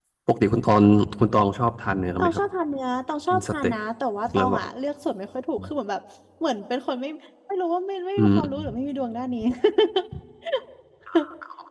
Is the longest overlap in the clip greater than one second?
No

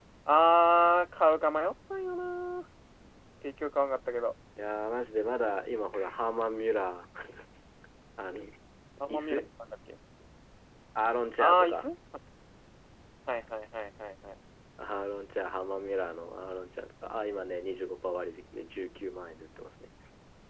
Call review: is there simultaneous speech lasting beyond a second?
No

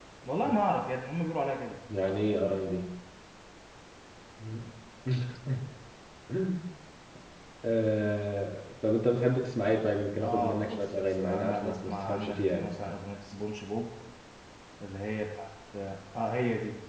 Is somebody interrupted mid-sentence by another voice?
Yes, from 10.2 s

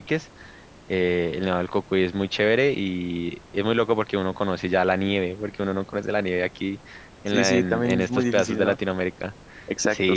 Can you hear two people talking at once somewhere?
Yes, from 7.3 s

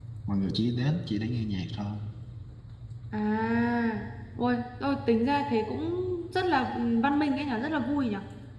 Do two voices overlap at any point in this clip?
No

